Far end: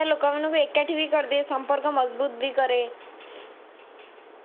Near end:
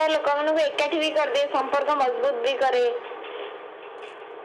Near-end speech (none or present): none